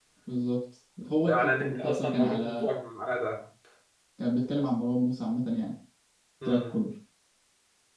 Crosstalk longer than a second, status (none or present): present